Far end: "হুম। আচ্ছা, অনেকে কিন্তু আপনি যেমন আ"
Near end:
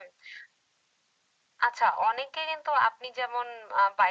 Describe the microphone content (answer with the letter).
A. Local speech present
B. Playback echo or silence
B